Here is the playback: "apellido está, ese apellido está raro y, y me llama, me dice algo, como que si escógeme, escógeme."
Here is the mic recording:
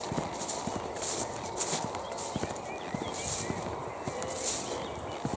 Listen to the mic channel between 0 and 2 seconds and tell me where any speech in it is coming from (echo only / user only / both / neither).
neither